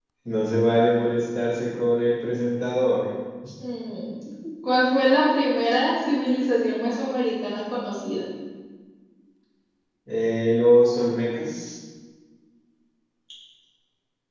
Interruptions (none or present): none